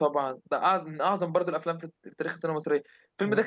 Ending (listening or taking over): listening